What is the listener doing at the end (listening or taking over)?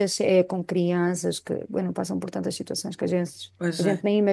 taking over